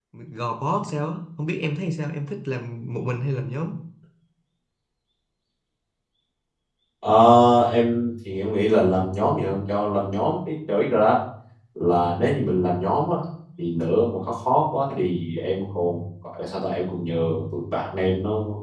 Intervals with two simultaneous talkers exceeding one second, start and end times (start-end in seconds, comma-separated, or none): none